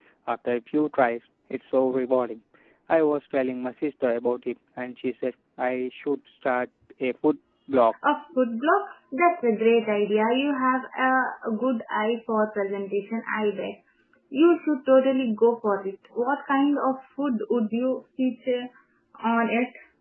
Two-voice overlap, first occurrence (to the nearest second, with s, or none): none